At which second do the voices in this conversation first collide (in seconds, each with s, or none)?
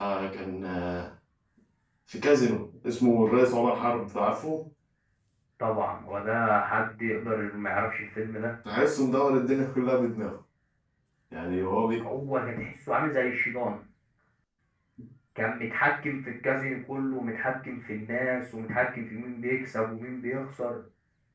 none